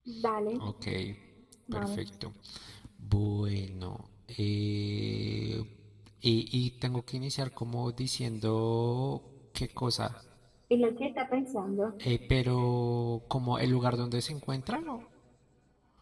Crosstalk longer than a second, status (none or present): none